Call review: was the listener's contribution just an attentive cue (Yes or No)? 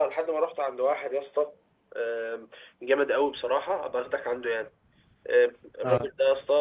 Yes